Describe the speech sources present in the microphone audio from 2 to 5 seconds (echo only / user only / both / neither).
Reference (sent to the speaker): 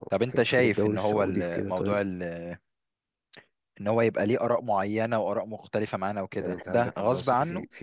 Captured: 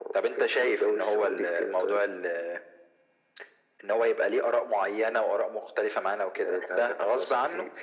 echo only